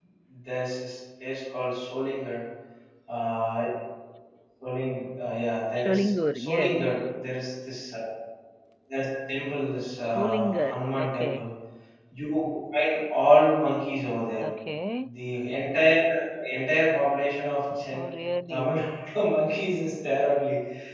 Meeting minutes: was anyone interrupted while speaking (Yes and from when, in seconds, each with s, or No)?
Yes, from 5.8 s